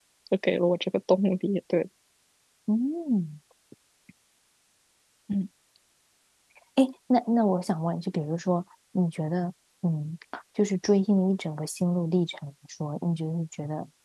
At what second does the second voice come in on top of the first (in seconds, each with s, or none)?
none